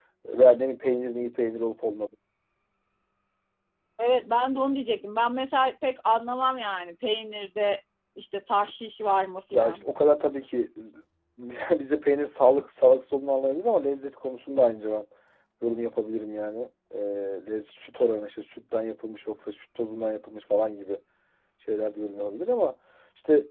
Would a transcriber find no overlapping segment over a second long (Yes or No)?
Yes